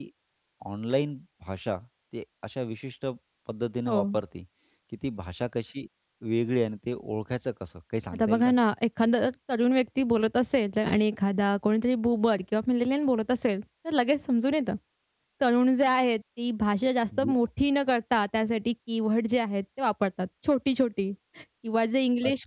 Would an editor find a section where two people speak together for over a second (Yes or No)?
No